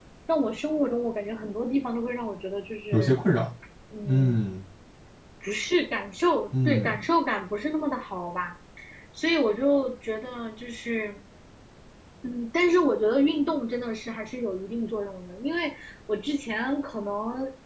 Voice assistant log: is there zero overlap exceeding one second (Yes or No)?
Yes